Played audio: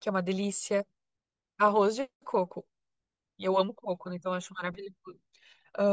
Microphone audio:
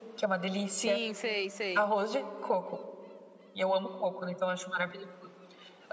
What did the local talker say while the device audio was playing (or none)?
Sim, sei, sei.